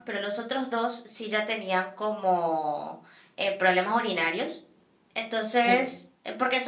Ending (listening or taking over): listening